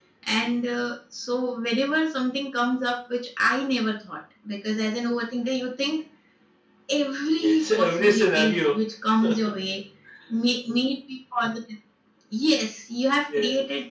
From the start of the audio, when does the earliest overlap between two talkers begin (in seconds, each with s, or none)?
7.4 s